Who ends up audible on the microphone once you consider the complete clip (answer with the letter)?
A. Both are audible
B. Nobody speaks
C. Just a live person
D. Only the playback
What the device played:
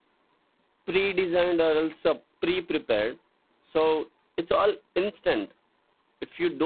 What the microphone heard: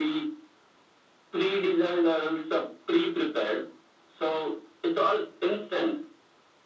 D